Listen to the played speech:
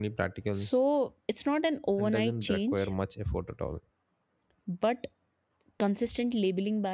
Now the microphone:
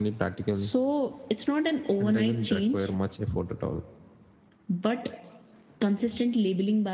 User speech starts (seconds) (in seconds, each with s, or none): none